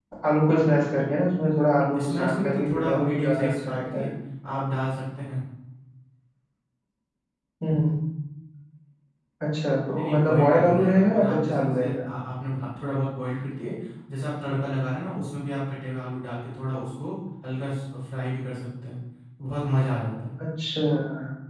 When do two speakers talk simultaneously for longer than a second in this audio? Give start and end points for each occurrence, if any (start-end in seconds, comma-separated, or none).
2.0-4.1, 10.0-12.1